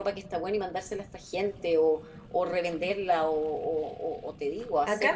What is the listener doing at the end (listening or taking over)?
taking over